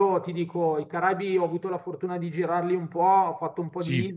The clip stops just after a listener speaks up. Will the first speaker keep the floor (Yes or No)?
Yes